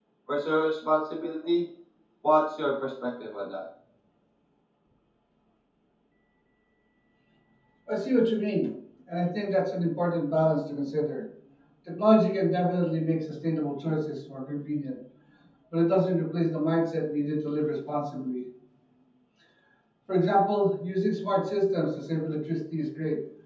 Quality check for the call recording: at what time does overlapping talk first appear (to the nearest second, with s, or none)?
none